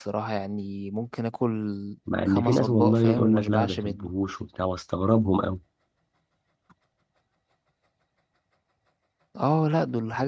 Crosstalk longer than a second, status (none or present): present